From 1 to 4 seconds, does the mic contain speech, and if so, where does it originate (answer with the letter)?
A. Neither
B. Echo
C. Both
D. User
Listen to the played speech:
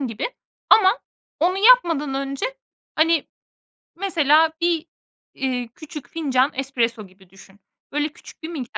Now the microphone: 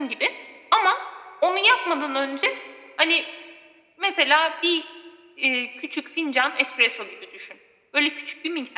B